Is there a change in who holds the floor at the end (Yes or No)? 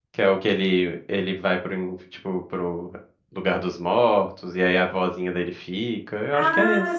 Yes